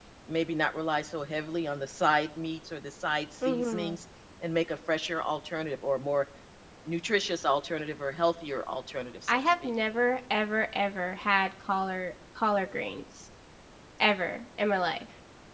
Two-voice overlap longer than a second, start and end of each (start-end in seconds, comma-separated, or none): none